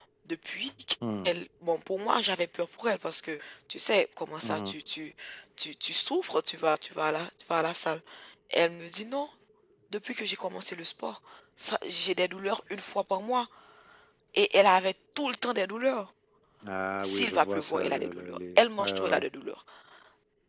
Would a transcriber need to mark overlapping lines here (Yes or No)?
Yes